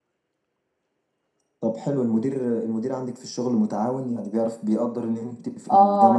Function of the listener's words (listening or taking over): taking over